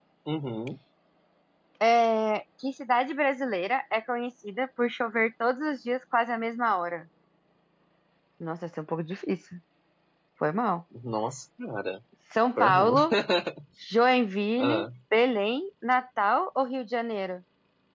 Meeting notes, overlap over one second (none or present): none